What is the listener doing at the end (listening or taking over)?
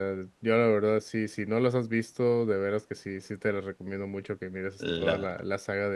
listening